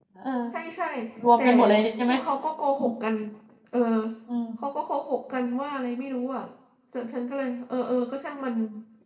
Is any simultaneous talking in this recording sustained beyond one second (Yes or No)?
No